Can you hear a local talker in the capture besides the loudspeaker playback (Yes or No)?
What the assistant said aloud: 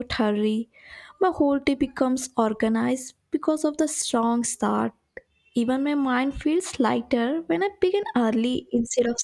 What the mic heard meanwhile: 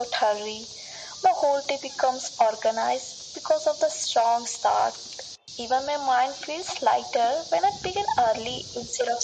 No